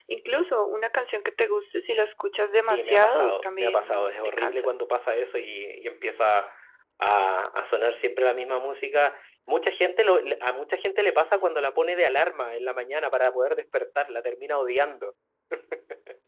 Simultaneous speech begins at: 2.6 s

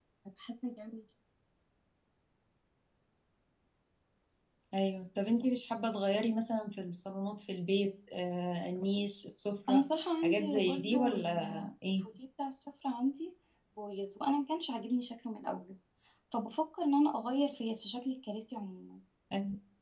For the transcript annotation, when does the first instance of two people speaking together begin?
9.7 s

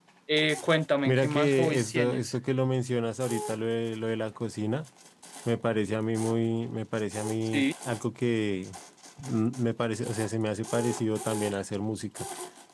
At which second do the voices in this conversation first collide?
1.0 s

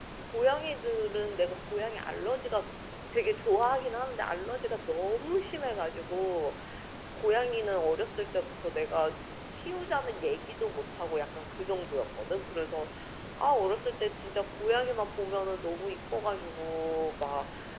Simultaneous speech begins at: none

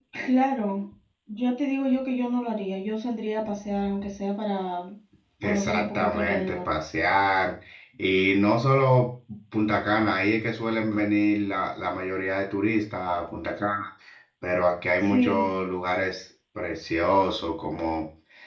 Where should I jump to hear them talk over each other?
5.4 s

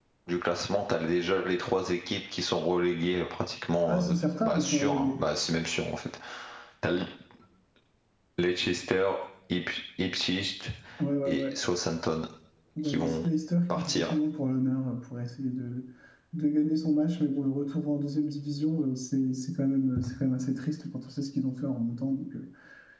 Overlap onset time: 3.9 s

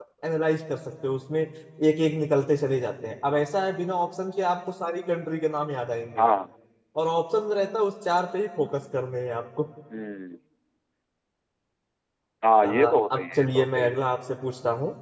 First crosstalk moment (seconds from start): 12.6 s

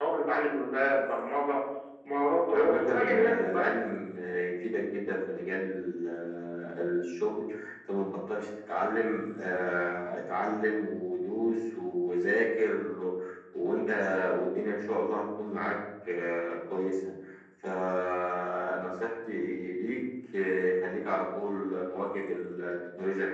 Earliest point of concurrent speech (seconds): 2.5 s

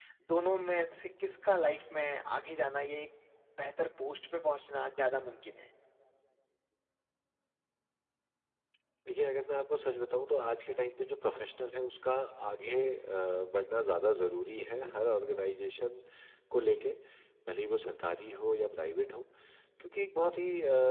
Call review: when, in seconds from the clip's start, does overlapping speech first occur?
none

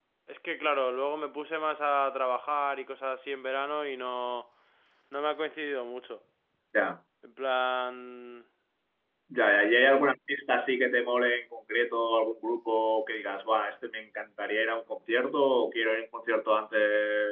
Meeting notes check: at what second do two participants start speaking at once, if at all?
none

